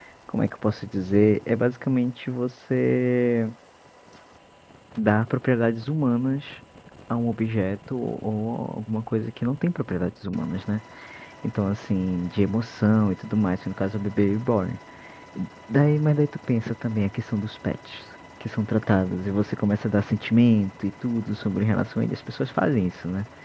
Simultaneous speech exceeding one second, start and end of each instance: none

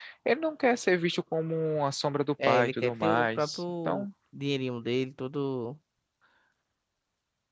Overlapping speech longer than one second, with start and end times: 2.5-4.0

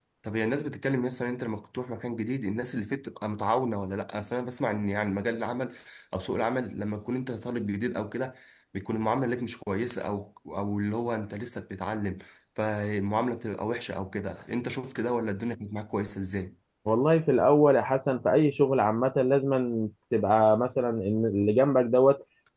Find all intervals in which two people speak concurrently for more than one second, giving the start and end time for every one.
none

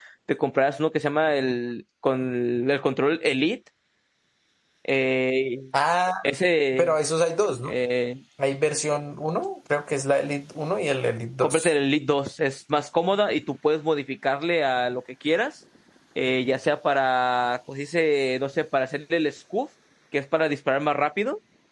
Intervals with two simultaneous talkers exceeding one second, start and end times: none

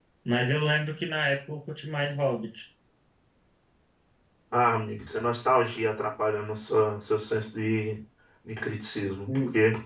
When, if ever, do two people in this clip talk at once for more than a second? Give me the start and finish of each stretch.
none

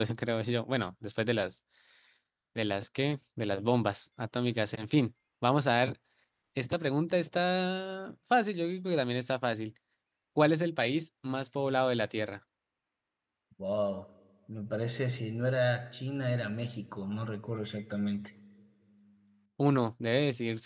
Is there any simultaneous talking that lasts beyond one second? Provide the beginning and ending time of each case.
none

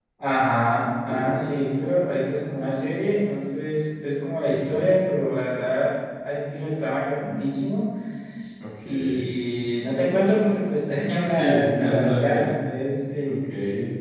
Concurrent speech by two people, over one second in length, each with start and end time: 11.2-12.5

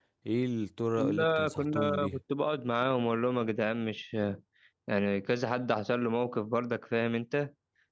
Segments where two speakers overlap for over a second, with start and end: 1.0-2.2

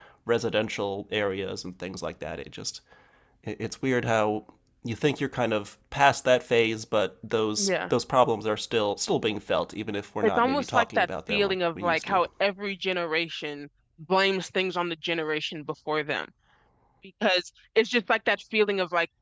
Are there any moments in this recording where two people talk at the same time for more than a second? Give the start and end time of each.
10.2-12.2

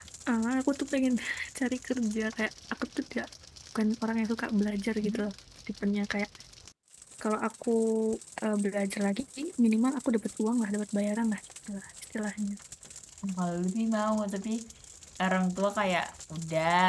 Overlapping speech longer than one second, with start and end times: none

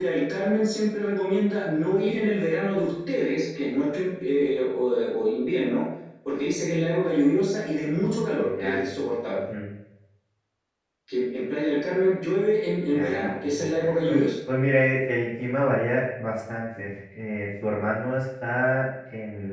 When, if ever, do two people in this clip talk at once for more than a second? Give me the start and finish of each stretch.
12.9-14.3

